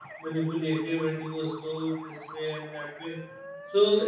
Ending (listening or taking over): listening